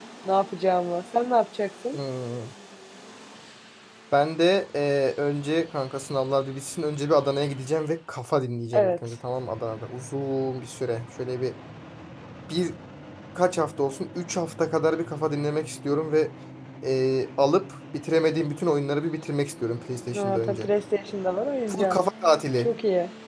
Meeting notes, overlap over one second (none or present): none